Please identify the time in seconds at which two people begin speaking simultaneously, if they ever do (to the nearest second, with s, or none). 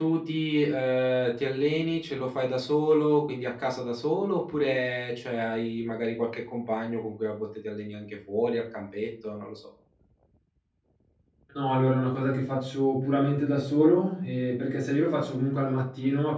none